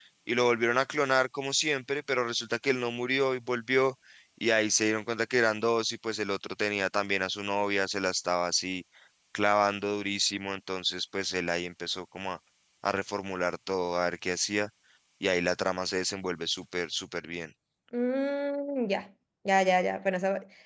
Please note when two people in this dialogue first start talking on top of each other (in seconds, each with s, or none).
none